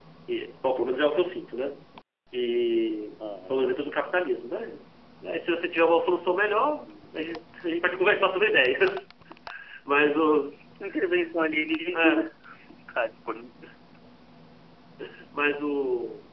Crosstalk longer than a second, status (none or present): none